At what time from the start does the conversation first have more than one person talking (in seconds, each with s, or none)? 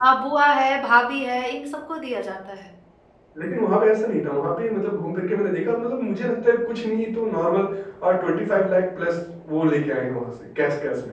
none